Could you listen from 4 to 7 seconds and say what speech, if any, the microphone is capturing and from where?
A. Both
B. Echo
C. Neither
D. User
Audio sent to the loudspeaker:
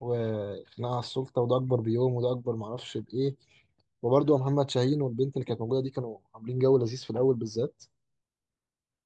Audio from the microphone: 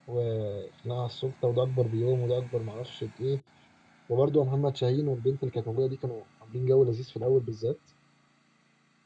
B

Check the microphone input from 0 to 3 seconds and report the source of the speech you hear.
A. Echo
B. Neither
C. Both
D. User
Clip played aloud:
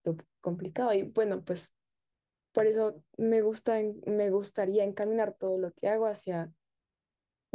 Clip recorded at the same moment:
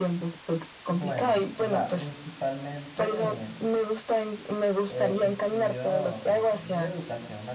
C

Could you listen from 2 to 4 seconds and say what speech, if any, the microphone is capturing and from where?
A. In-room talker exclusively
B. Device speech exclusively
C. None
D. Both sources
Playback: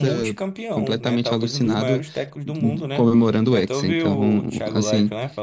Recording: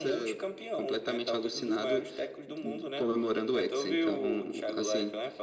B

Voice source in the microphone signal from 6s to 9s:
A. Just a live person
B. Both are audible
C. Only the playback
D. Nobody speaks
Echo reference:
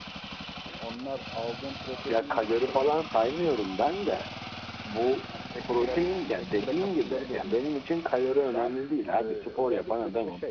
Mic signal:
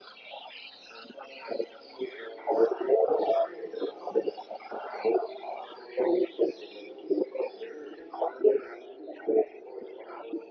C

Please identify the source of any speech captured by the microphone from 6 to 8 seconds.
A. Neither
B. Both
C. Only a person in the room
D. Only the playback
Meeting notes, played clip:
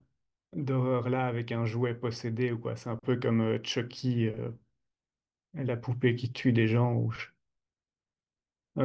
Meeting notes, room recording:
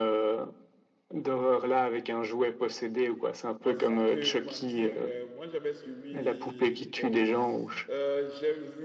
B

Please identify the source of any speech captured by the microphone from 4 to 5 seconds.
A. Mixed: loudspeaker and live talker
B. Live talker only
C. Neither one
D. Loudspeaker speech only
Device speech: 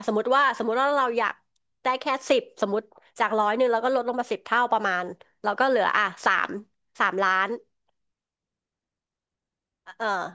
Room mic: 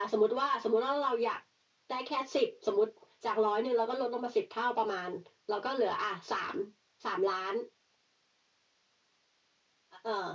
D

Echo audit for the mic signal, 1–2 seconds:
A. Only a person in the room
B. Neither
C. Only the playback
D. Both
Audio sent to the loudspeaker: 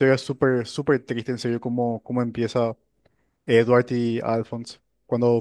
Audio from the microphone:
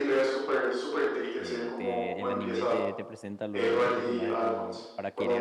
D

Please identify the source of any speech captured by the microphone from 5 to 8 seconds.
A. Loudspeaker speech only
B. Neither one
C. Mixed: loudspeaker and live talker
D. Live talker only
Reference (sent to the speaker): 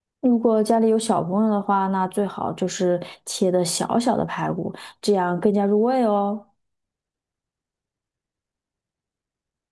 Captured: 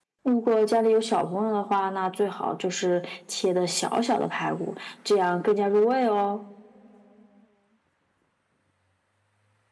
A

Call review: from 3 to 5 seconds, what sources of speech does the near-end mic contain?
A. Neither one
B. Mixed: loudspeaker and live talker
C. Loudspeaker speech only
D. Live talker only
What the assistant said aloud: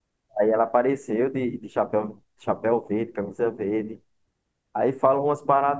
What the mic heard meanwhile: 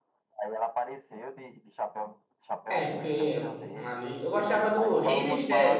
B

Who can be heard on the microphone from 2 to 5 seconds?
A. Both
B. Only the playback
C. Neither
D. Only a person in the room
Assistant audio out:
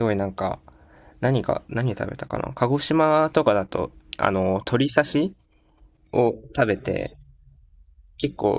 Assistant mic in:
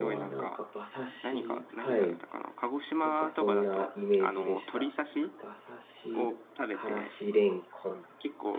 A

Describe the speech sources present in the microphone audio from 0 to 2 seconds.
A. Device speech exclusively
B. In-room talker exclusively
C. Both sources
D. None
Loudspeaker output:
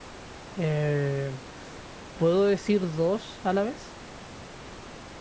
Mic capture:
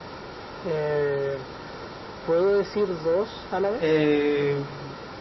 A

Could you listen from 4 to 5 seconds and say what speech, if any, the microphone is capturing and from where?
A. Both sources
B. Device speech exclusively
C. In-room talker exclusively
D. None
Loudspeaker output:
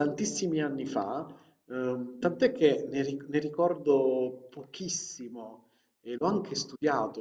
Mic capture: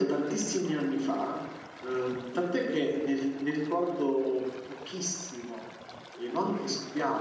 B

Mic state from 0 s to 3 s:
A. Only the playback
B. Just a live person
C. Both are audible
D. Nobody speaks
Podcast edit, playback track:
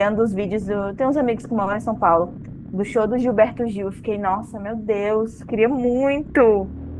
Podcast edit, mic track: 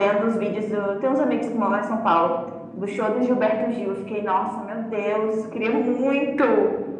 A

